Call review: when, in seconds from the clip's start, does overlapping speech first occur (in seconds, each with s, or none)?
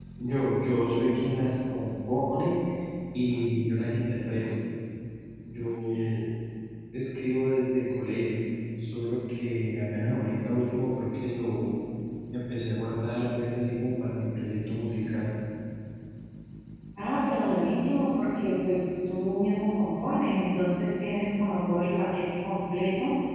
none